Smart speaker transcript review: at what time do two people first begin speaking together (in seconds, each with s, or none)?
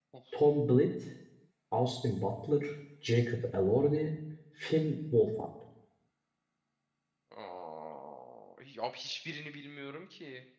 none